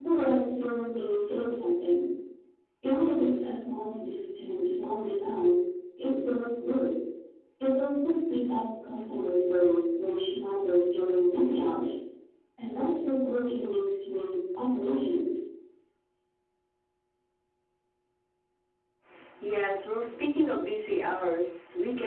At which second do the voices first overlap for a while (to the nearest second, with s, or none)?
none